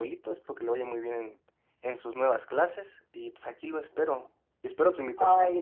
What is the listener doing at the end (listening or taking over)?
taking over